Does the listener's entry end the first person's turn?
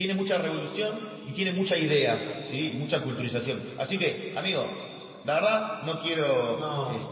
No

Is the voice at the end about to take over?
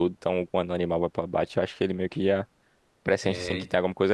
No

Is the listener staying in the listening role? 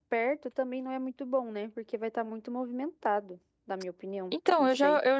No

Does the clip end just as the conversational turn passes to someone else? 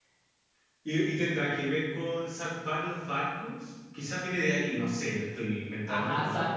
Yes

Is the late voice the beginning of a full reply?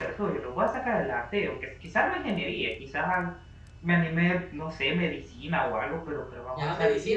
Yes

